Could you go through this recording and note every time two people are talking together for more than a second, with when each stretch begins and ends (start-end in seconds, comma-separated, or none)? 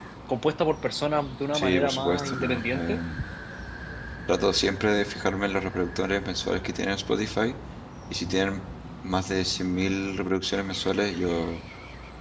1.5-3.0